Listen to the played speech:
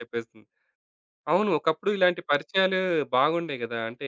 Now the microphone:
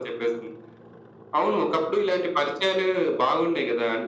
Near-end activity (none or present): none